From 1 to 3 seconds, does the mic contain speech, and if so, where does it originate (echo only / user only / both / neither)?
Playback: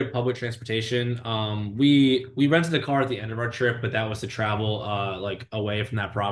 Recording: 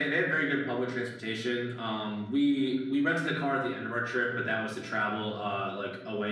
echo only